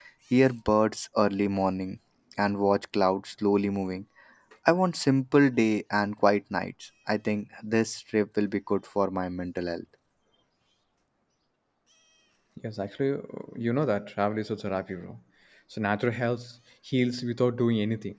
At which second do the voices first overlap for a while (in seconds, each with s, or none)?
none